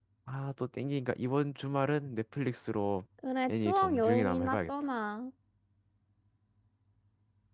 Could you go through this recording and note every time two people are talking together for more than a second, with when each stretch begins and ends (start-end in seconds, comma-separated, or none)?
3.5-4.7